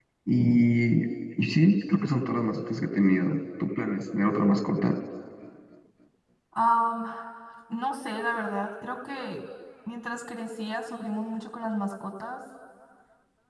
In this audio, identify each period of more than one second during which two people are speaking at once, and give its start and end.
none

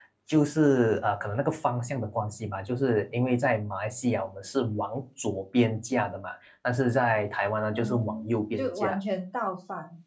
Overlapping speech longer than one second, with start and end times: 7.7-9.0

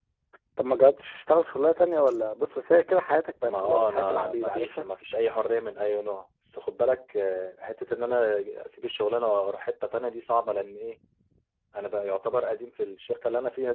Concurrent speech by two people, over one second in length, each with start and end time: 3.4-4.9

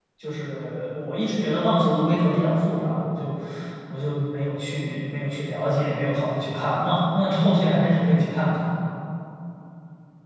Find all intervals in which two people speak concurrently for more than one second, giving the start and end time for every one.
none

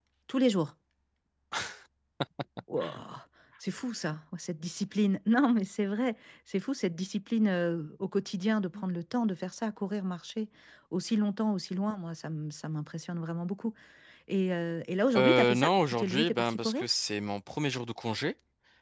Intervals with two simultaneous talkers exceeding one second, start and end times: 15.2-16.8

